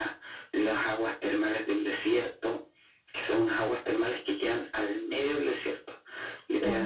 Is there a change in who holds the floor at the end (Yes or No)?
Yes